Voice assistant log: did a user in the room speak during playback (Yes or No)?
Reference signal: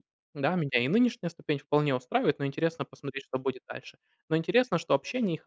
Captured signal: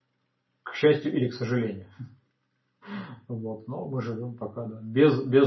Yes